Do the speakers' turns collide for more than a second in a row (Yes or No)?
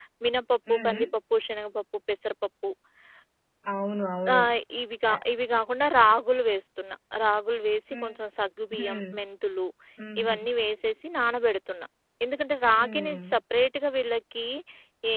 No